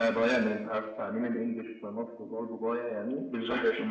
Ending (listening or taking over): listening